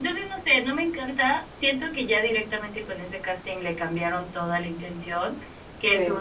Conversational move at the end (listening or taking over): listening